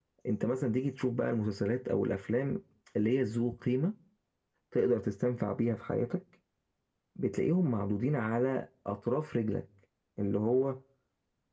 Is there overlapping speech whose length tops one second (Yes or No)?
No